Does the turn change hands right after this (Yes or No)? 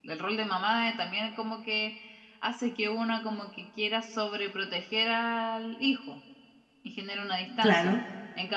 No